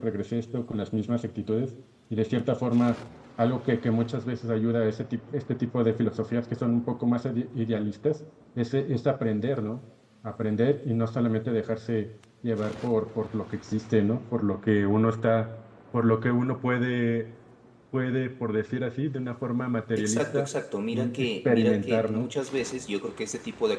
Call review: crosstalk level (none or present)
present